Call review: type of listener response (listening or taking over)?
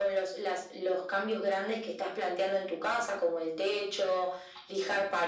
listening